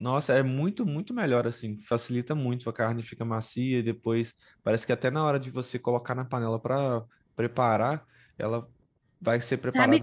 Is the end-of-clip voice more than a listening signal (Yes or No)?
Yes